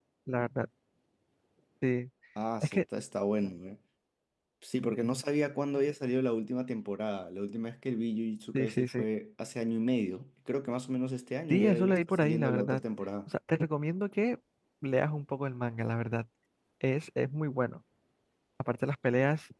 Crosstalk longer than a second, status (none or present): present